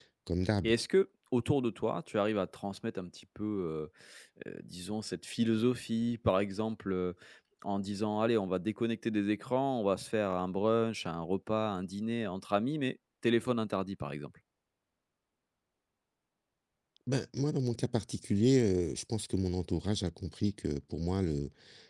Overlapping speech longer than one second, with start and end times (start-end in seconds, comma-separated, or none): none